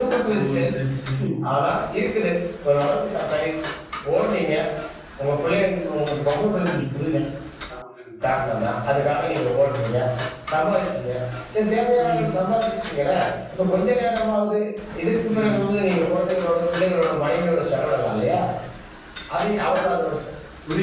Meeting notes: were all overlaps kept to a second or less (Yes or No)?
Yes